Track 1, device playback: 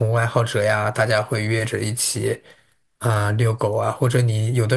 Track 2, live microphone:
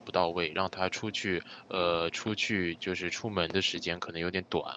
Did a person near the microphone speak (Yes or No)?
Yes